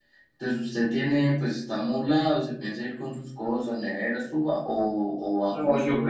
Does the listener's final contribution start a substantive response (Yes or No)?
Yes